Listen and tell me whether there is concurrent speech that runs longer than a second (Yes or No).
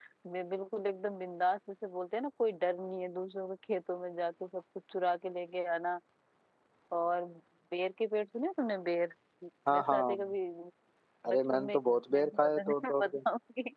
Yes